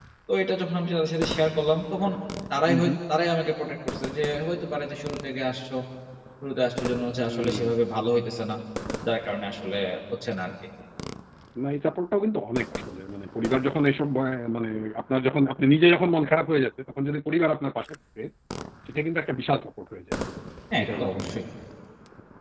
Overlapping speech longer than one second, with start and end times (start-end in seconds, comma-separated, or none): none